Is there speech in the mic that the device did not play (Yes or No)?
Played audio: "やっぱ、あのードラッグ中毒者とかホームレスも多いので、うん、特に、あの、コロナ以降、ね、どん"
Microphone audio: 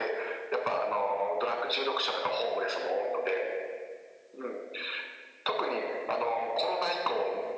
No